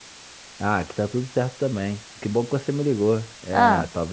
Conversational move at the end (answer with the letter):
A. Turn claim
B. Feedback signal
B